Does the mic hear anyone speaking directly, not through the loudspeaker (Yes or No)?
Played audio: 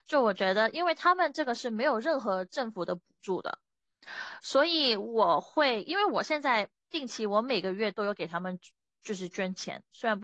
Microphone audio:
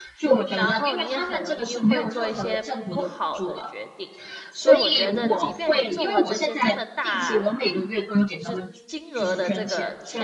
Yes